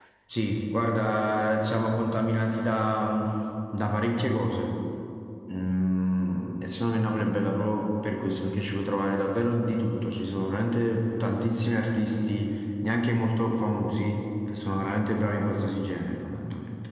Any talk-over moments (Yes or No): No